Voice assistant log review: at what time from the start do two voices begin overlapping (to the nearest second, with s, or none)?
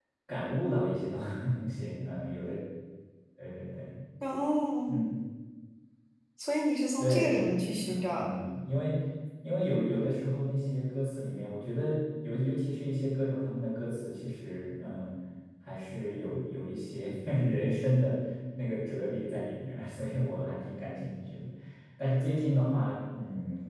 7 s